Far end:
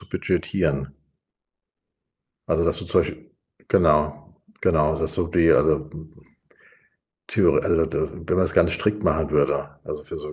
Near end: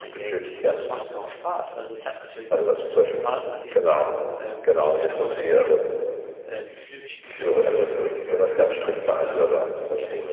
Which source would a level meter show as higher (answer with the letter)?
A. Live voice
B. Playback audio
B